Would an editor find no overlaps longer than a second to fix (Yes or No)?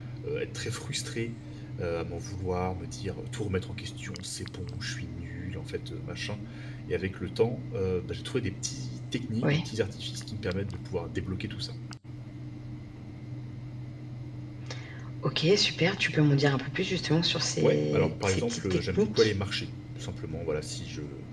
No